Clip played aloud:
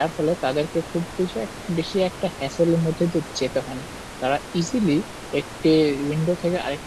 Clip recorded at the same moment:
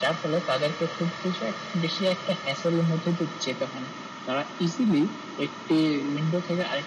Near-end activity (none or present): none